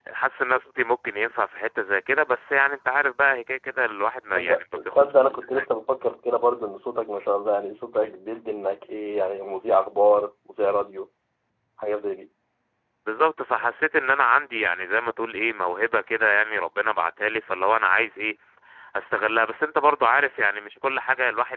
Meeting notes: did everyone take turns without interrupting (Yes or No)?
No